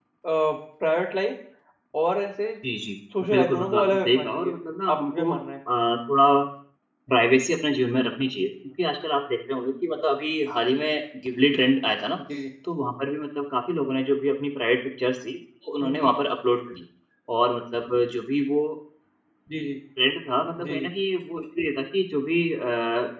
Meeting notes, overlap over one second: present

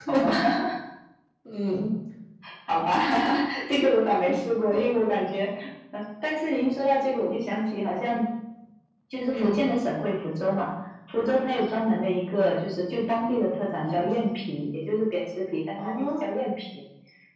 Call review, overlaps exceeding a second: none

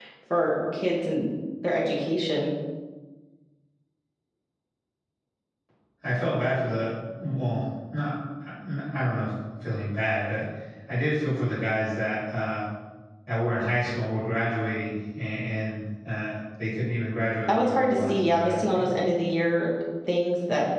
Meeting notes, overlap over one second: present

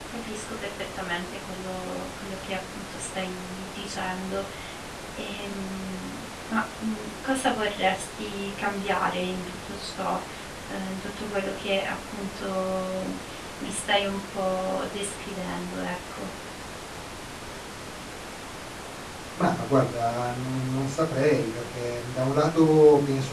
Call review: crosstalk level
none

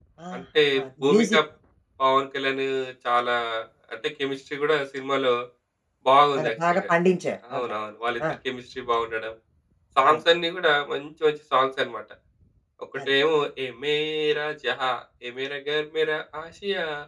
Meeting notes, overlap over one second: none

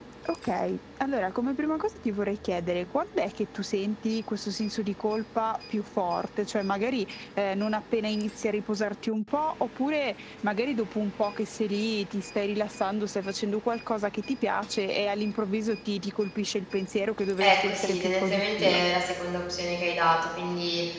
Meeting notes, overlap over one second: present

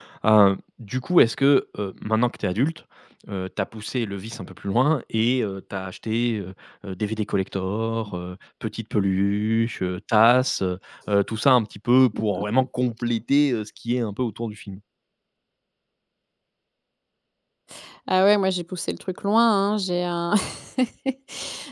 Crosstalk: none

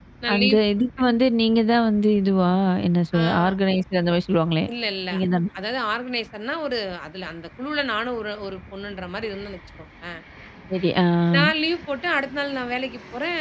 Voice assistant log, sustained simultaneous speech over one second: none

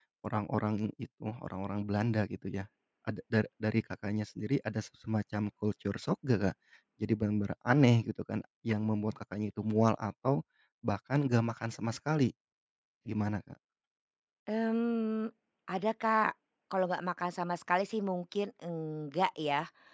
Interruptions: none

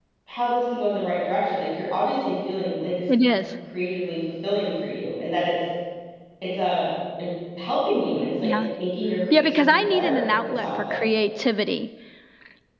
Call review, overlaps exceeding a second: present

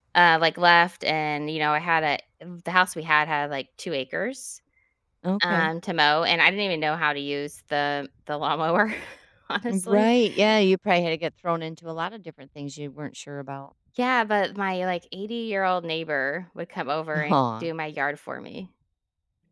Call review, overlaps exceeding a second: none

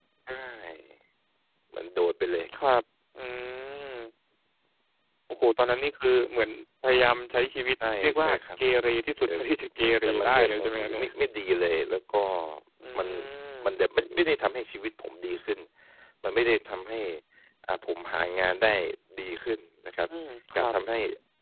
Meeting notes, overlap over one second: present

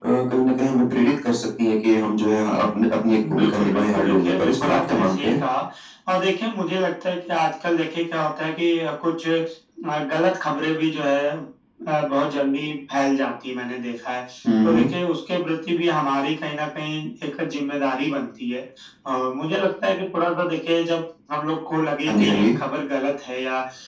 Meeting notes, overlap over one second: present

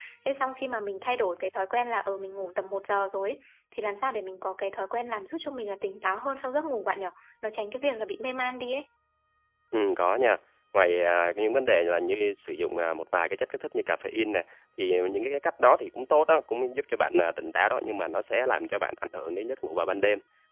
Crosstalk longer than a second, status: none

